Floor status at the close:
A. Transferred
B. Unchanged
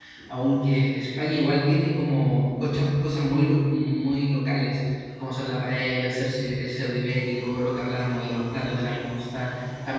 B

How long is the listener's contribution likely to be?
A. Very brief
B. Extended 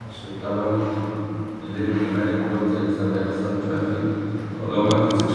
B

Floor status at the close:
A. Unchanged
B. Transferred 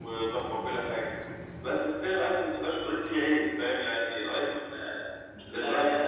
B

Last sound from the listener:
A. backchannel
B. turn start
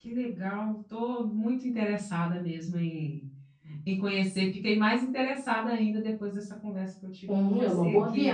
B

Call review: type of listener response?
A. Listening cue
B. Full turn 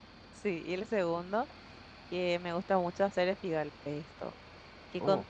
A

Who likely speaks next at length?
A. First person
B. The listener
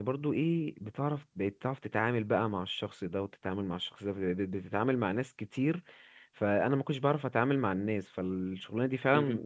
A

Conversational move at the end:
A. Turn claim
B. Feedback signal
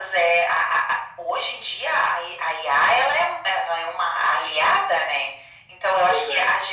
B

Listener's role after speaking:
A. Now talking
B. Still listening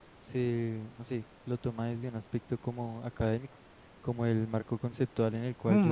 A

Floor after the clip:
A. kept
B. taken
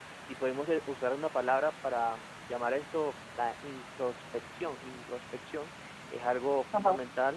A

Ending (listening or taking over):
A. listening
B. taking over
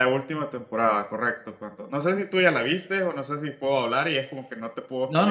B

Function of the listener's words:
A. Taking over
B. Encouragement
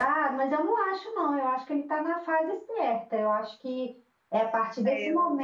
B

